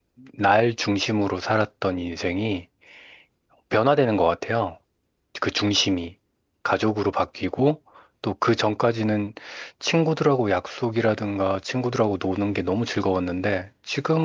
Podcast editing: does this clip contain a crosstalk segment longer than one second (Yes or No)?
No